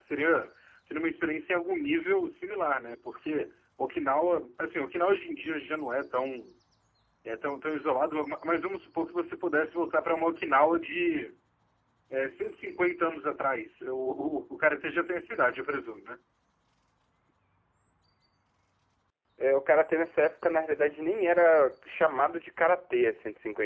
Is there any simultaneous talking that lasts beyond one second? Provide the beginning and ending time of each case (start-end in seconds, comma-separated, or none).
none